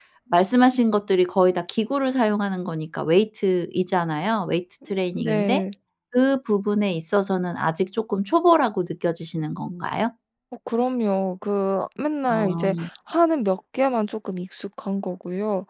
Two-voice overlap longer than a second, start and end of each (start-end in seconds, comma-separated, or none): none